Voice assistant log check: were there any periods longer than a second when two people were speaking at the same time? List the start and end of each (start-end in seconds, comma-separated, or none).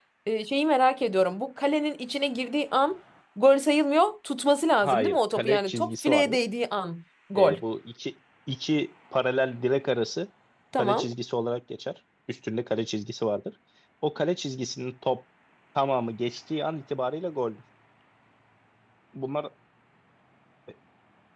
4.8-6.4